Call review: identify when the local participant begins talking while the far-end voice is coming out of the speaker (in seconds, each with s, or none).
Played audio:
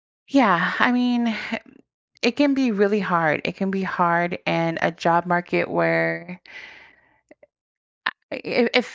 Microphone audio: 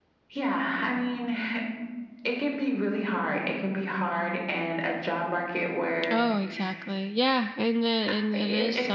6.1 s